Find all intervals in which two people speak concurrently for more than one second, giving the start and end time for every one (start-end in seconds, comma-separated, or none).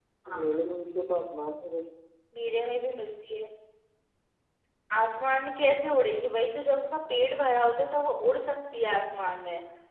none